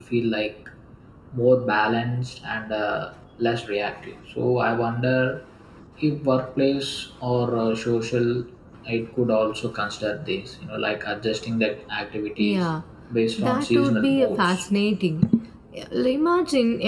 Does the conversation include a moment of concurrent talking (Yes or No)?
Yes